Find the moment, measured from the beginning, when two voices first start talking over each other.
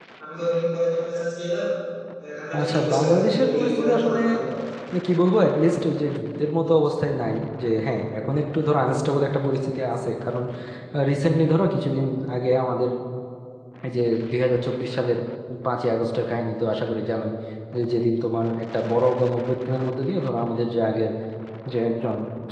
2.6 s

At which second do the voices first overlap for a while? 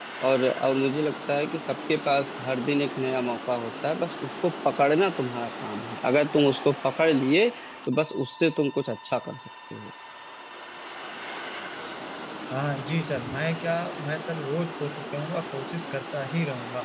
none

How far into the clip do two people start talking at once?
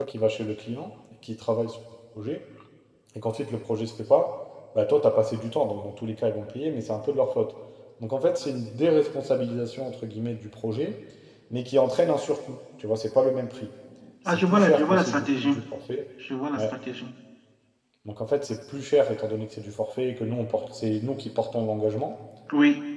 14.2 s

